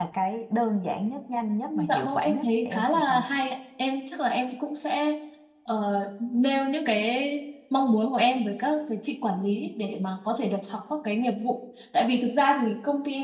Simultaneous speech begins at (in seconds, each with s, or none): 1.7 s